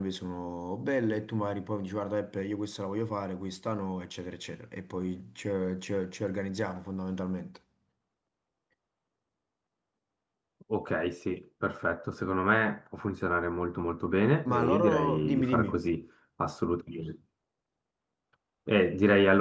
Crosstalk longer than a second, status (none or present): present